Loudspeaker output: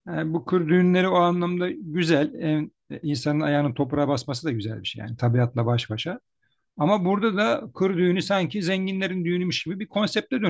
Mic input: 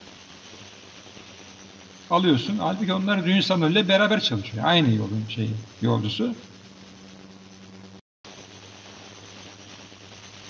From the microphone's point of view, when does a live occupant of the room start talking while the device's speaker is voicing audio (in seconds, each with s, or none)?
2.1 s